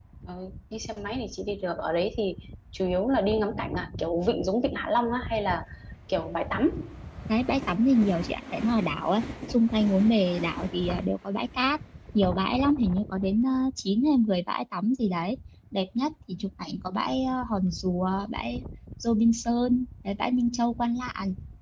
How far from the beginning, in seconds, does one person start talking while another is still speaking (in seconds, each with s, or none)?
none